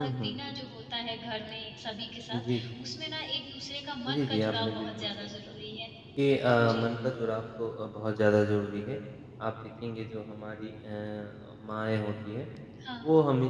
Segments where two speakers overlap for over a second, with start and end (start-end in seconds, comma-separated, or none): 4.1-5.5